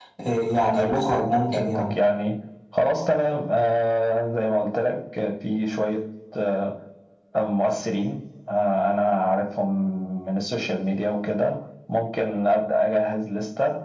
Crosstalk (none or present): present